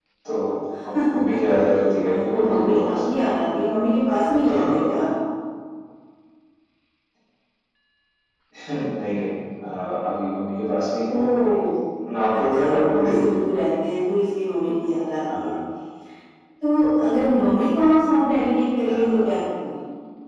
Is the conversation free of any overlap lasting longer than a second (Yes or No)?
No